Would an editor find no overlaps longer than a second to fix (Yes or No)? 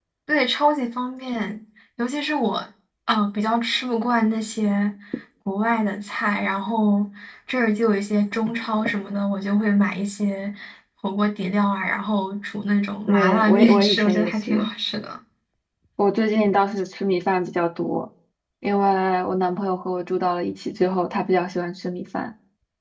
No